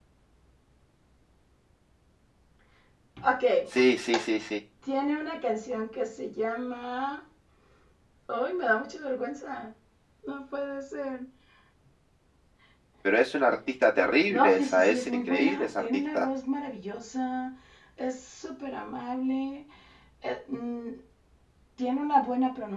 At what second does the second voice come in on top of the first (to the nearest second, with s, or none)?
14 s